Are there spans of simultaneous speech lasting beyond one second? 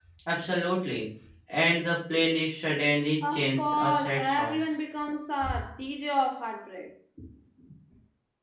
Yes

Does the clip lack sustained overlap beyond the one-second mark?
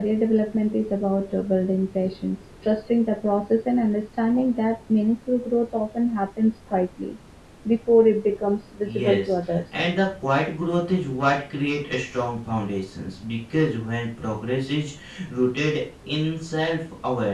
Yes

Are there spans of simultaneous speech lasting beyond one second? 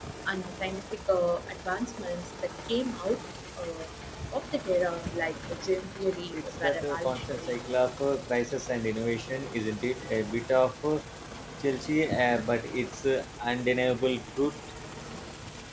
Yes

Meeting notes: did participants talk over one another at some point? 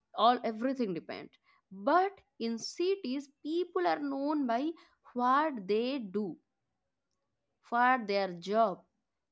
No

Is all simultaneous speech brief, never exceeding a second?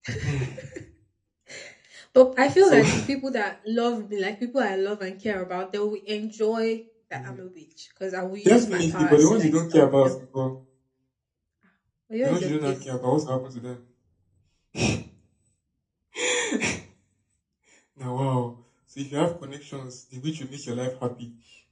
No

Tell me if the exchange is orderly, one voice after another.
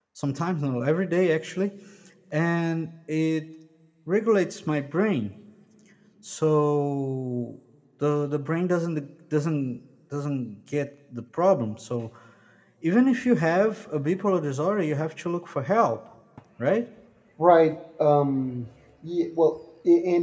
Yes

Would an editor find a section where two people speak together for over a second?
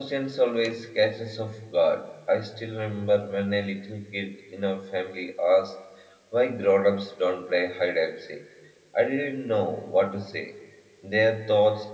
No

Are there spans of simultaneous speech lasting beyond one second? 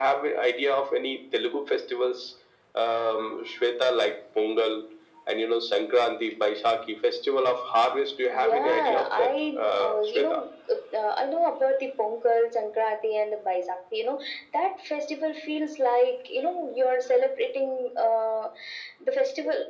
Yes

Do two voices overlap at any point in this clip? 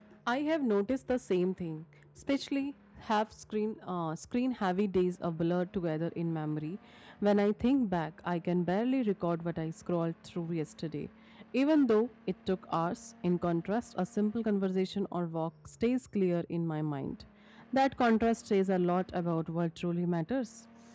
No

